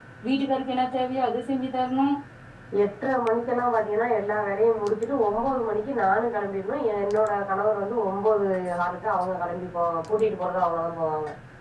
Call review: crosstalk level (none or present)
none